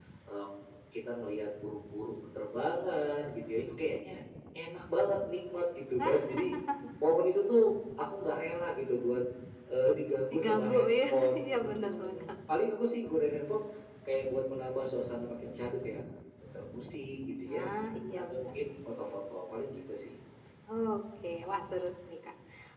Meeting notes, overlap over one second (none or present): present